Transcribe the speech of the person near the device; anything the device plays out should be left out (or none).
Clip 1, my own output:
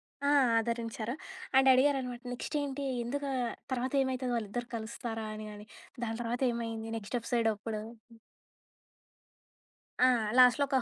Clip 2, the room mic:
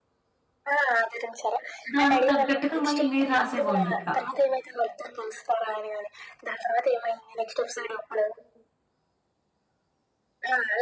దానికి తగ్గట్టుగా మళ్ళీ మీరు రాసేవాళ్ళిక.